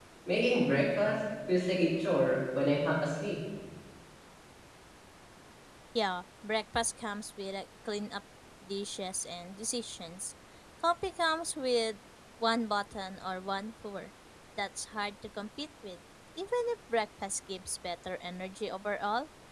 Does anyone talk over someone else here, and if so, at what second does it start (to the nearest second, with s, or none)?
none